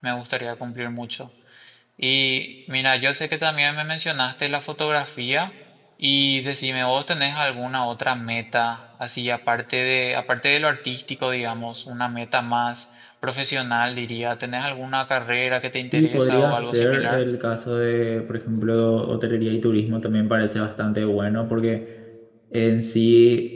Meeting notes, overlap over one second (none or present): present